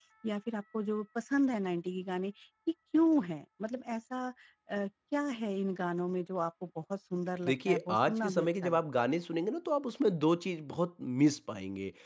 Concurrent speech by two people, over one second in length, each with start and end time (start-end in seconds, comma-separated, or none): 7.5-8.8